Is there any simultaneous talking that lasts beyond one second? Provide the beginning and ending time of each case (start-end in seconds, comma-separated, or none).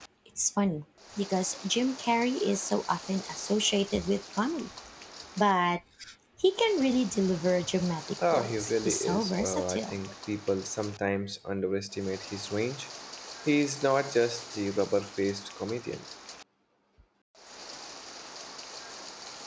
8.3-10.0